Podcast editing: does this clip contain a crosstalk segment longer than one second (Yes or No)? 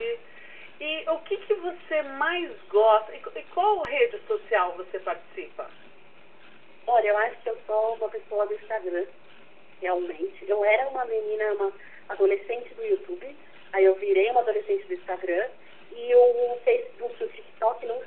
No